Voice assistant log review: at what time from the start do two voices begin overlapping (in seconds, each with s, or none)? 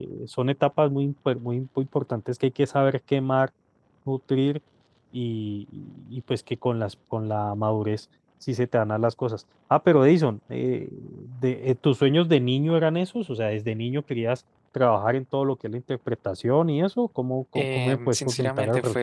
17.6 s